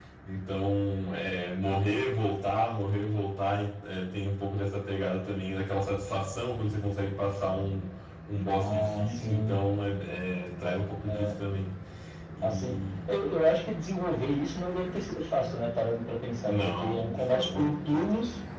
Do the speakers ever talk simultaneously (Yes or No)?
Yes